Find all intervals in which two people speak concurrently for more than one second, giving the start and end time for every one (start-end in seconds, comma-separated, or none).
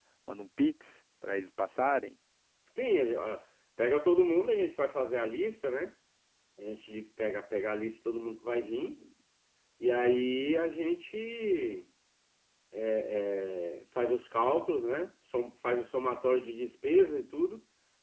none